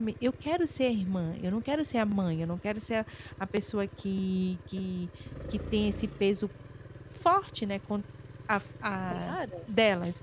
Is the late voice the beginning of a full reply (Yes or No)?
No